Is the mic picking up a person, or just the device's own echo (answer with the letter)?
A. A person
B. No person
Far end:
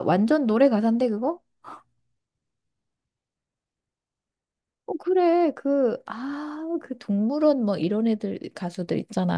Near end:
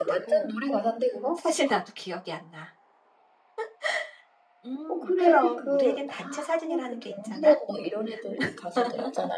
A